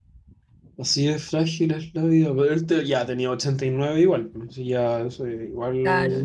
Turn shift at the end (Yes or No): Yes